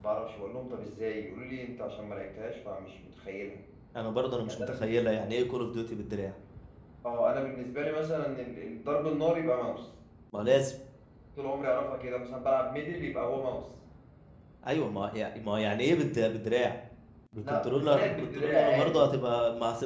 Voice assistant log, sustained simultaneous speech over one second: present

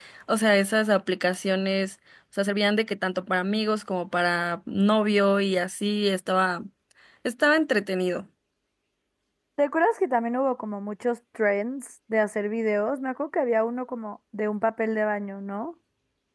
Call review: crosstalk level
none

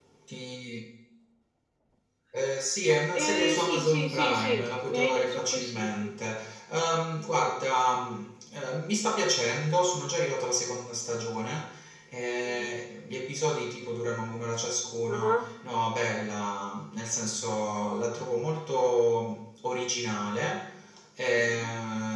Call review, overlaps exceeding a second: present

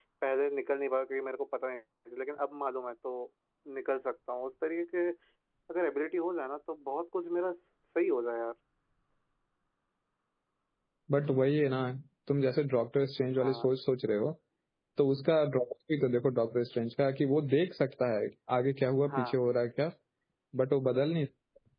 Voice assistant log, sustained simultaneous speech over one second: none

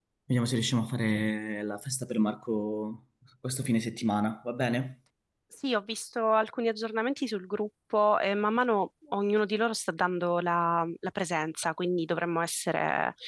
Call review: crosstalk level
none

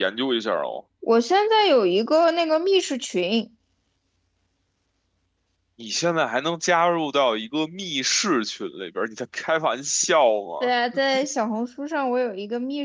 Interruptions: none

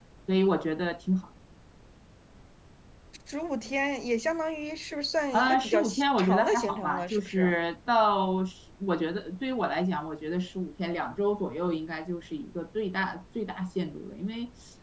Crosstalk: present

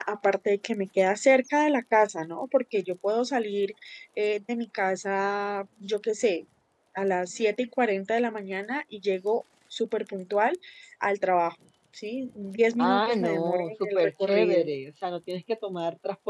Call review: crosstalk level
present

